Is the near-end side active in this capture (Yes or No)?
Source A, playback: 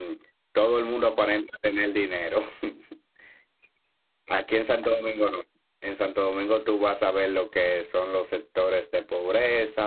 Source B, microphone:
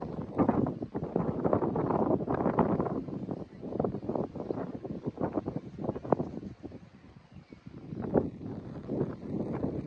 No